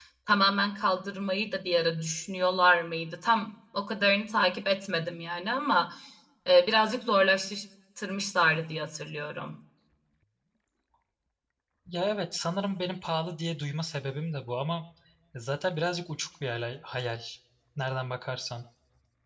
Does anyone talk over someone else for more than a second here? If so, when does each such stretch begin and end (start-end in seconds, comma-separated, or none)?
none